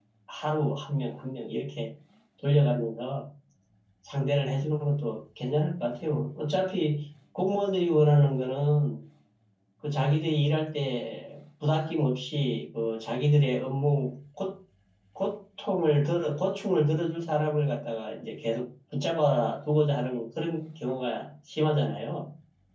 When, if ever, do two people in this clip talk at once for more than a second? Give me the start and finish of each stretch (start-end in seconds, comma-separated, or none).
none